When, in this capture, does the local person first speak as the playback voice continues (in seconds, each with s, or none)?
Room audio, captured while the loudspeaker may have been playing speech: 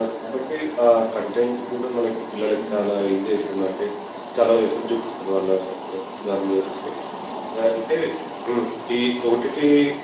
2.5 s